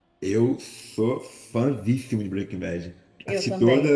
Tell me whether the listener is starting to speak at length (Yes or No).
No